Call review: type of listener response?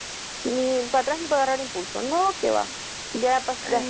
listening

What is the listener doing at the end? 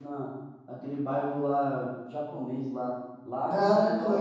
listening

